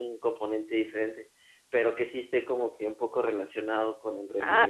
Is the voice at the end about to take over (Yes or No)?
Yes